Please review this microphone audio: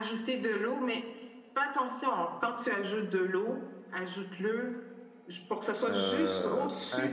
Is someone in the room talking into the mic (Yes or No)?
Yes